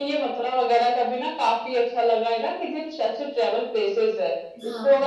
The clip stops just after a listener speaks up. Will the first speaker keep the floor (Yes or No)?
Yes